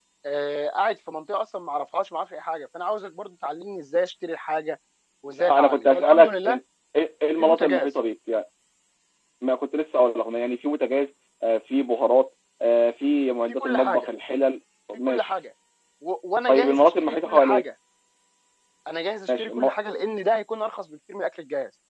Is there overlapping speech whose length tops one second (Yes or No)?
Yes